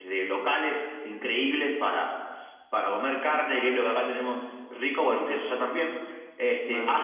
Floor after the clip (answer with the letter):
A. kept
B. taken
A